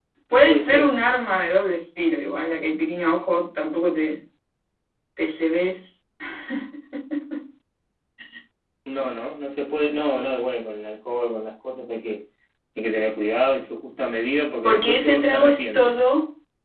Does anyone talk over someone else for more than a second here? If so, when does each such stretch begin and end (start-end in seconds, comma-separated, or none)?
14.6-16.0